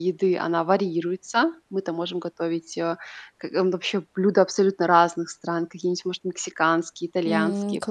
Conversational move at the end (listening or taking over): listening